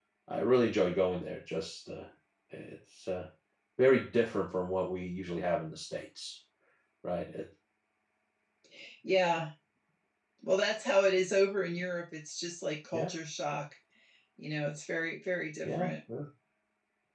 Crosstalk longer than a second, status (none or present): none